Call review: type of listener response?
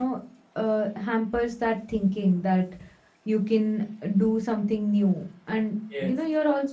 listening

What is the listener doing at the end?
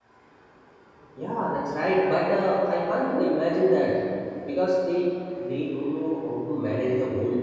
taking over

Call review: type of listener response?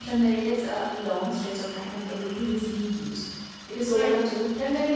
listening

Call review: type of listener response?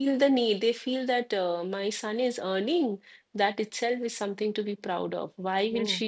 listening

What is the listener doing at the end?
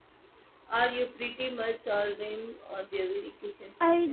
taking over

